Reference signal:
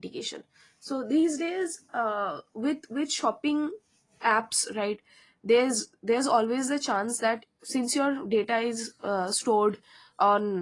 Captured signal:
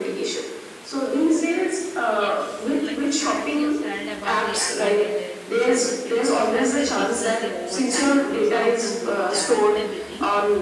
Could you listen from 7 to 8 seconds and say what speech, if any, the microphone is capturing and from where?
both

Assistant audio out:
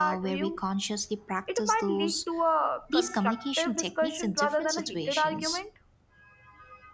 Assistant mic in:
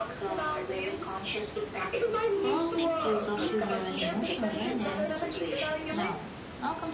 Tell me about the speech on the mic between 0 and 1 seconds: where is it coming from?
echo only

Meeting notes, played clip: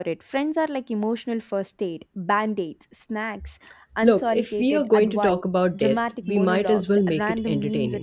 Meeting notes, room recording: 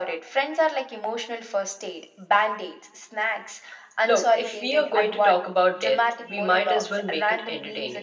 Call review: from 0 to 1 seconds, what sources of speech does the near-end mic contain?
echo only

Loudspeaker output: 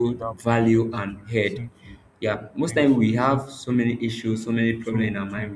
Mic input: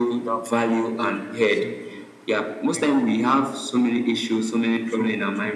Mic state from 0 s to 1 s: echo only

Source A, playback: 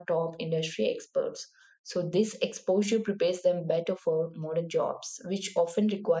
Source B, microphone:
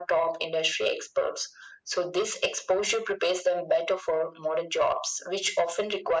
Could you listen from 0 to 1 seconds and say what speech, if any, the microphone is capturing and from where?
echo only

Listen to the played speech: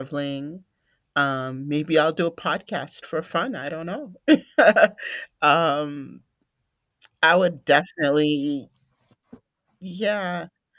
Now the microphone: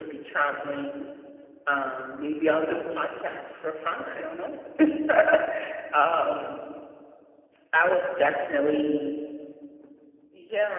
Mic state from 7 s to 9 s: echo only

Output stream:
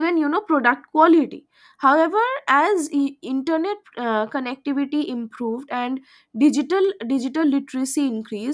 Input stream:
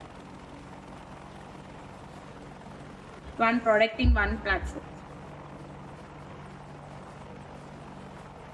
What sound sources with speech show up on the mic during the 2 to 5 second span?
user only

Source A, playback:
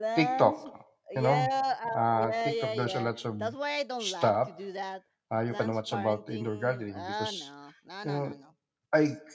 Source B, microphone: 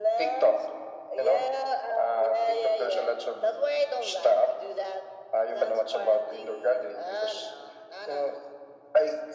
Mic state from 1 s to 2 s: echo only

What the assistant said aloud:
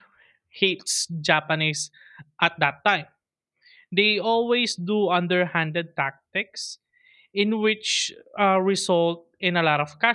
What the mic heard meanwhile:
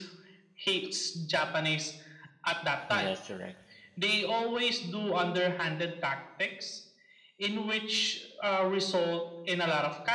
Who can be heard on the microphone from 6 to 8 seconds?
echo only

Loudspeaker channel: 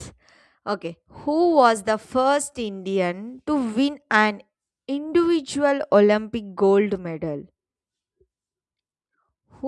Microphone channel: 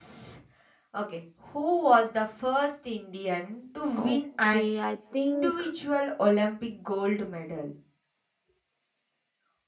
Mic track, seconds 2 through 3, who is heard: echo only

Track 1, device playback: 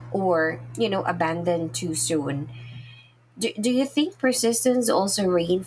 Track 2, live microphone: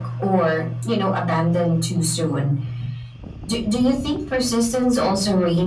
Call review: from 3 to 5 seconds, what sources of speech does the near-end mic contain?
echo only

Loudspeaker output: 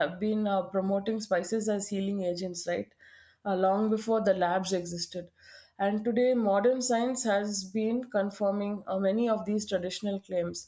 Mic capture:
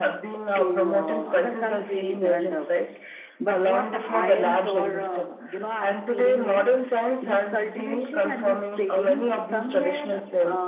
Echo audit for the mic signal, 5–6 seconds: both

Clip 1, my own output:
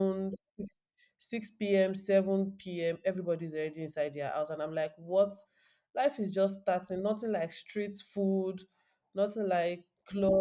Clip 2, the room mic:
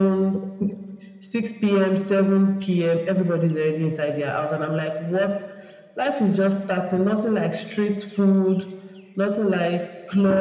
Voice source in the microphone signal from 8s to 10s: echo only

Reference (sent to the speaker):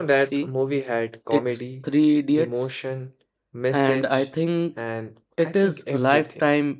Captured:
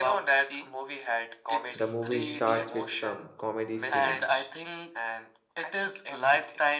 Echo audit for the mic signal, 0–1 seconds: echo only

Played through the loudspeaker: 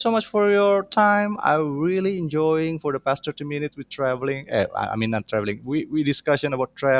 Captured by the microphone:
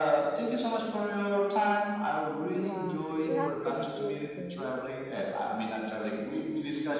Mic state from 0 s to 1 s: echo only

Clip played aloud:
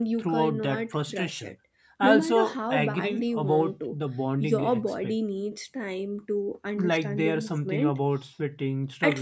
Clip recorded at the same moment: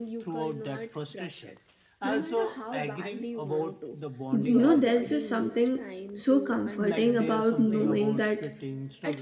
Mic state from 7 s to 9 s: both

